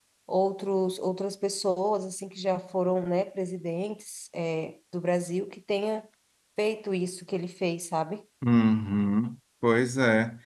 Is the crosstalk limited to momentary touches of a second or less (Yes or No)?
Yes